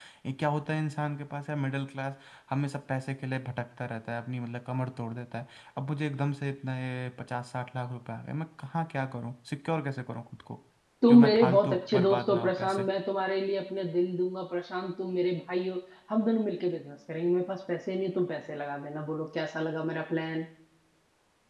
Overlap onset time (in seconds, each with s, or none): 11.1 s